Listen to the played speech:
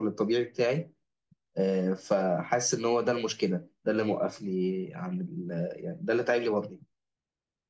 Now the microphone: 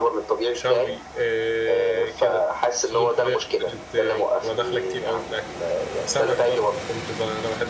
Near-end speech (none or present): present